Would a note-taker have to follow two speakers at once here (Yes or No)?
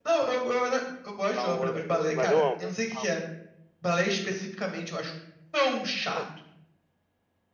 Yes